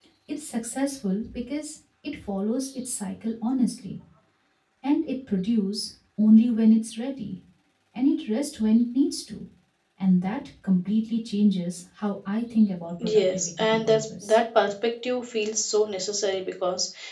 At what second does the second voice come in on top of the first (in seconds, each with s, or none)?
13.0 s